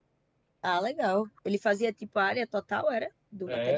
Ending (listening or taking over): taking over